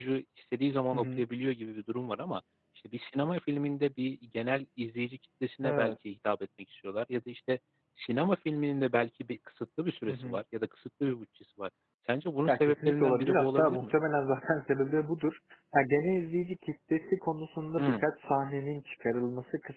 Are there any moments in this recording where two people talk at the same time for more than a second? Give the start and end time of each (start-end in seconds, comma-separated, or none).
12.5-13.9